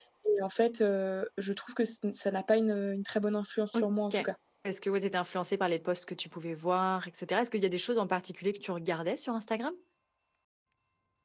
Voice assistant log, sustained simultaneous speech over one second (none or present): none